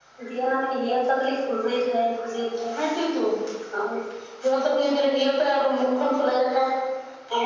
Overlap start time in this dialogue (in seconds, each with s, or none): none